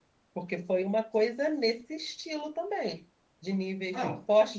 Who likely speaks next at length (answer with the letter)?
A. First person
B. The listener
A